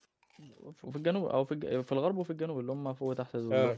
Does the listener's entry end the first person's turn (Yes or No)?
No